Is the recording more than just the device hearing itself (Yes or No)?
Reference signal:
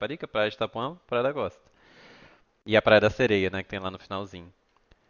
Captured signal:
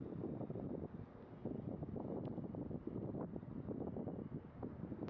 No